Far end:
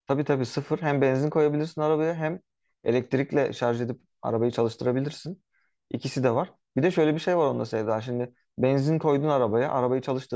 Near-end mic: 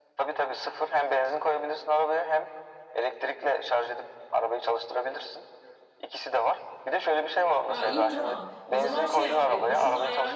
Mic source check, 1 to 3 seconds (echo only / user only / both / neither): echo only